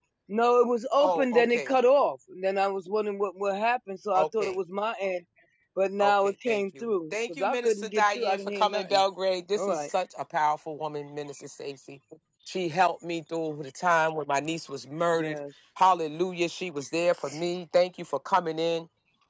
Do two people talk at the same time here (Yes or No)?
Yes